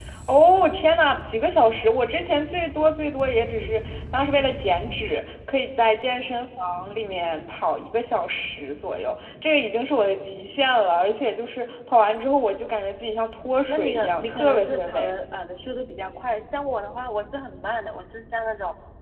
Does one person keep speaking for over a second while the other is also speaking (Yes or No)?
Yes